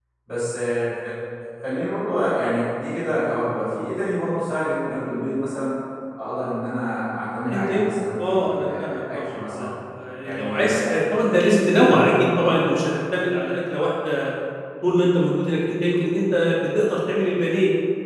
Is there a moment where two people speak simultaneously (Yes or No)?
Yes